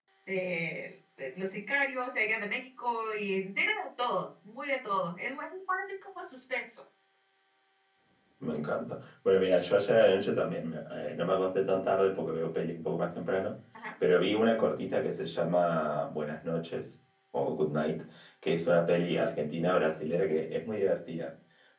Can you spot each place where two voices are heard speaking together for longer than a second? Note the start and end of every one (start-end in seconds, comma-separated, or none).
none